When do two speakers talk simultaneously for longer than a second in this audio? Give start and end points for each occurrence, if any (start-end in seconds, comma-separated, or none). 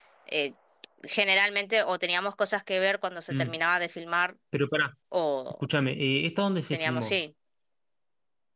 none